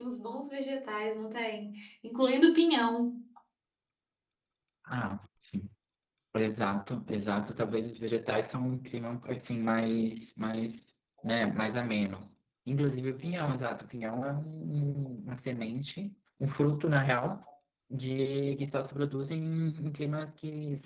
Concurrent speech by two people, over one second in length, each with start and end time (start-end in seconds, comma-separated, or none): none